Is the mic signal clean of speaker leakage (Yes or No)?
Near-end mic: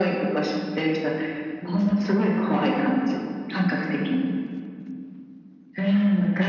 No